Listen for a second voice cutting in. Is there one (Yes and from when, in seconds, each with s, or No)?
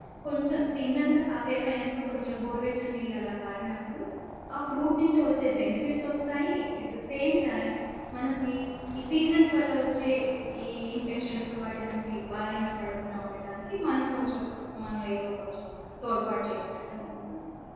No